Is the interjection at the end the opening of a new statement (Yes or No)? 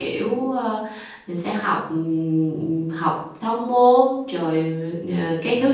No